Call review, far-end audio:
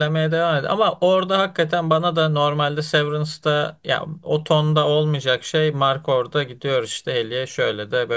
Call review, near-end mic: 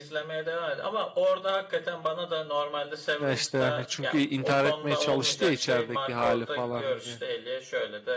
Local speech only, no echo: ya işte yani çünkü intihar etmeye çalıştı ya içerideki hali falan hani.

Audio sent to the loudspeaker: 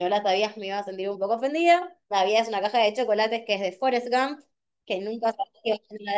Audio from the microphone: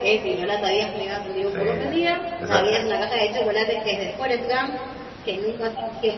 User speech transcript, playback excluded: Sí. Esa, eh,

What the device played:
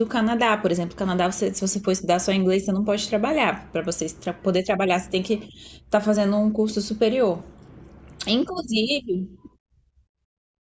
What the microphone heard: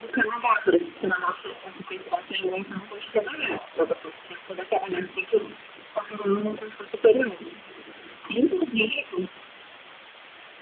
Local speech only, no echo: none

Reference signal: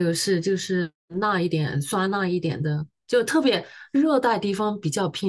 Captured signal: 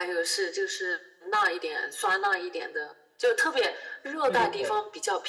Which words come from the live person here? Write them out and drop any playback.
对对对

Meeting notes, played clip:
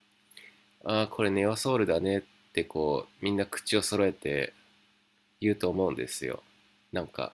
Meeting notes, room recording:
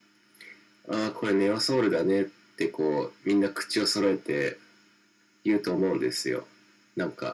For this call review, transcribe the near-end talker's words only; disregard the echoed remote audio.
none

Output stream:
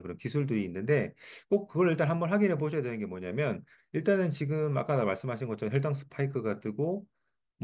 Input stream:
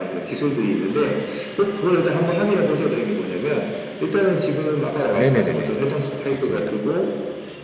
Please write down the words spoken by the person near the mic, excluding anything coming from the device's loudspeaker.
네네네네. 좋습니다.

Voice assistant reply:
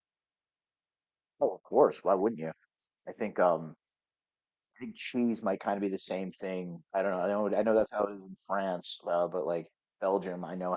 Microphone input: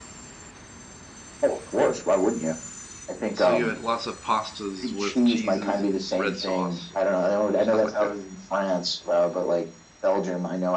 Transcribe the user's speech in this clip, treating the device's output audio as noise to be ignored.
So you had lots of pastas with cheeses and red sauce and stuff like that.

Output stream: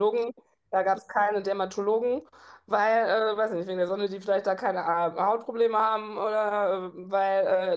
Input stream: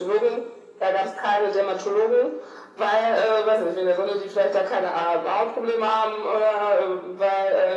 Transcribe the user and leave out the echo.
none

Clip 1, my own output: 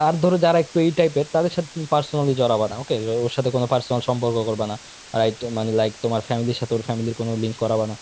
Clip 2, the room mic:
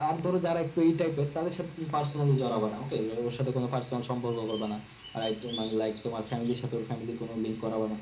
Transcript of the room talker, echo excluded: none

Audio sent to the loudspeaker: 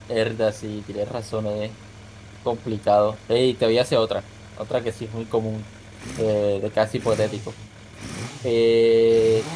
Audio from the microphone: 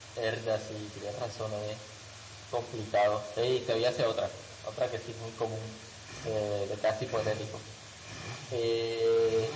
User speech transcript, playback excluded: none

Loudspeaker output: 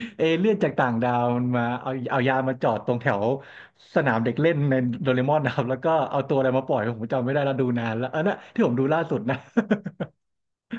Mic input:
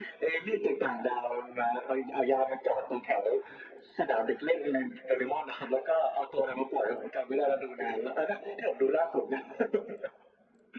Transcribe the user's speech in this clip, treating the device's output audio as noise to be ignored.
none

